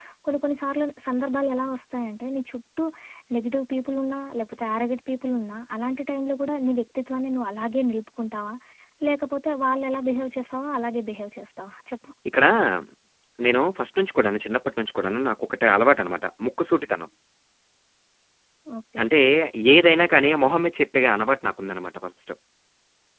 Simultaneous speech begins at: none

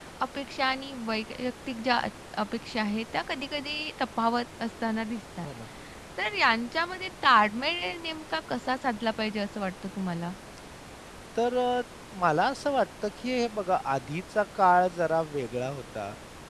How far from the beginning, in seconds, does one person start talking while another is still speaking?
none

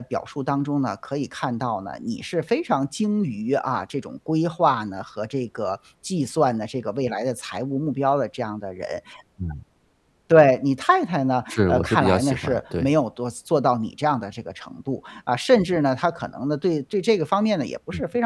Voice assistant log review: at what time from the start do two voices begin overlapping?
11.5 s

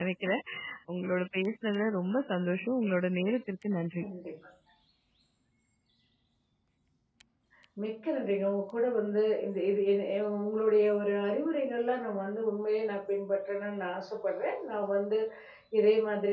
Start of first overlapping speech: none

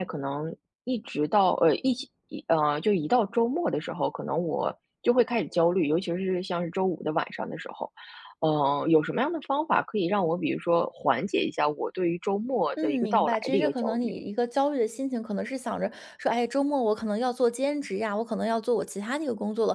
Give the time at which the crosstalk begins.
12.8 s

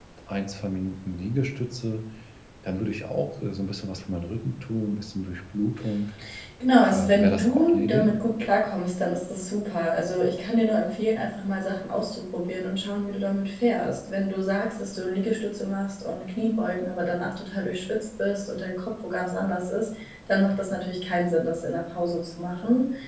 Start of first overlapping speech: 6.9 s

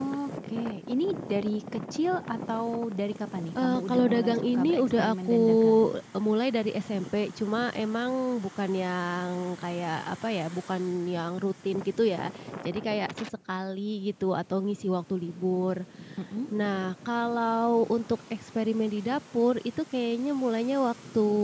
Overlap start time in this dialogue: 3.5 s

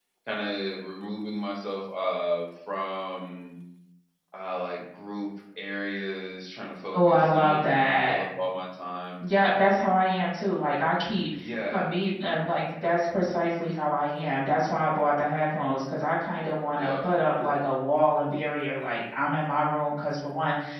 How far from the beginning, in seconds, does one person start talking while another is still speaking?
6.9 s

